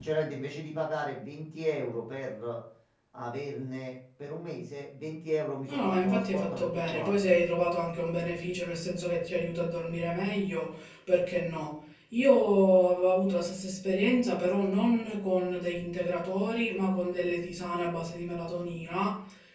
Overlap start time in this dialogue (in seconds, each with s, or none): 5.7 s